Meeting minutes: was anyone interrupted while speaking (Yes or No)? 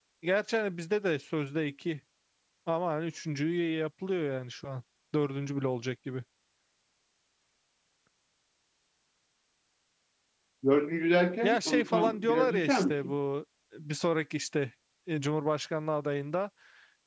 Yes